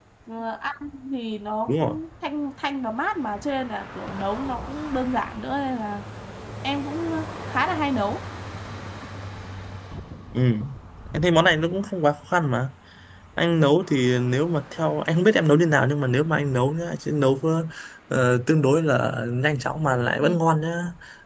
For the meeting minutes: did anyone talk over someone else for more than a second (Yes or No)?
No